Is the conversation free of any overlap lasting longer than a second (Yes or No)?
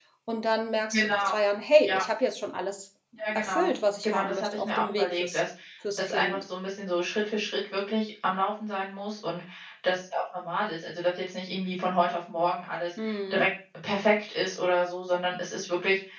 No